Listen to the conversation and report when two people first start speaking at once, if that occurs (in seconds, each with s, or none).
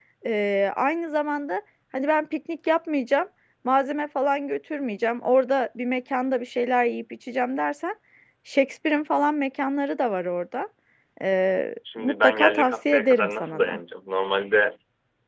12.0 s